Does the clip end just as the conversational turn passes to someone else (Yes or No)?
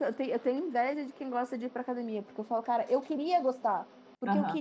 No